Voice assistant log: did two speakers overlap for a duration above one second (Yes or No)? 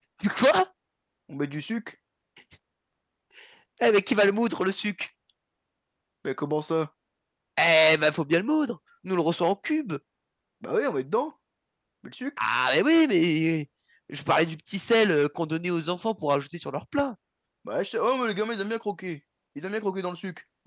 No